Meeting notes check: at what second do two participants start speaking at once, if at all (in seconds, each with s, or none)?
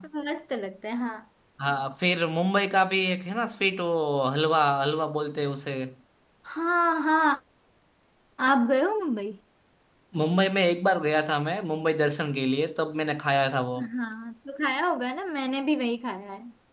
none